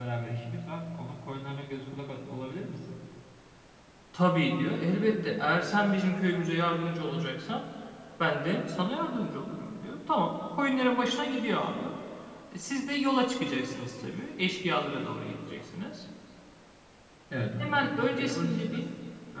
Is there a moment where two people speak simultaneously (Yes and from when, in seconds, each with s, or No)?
Yes, from 17.6 s